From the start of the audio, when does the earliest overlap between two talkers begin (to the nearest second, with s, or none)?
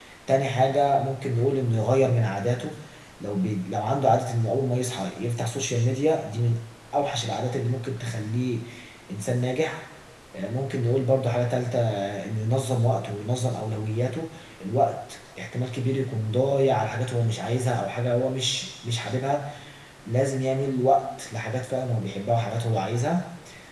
none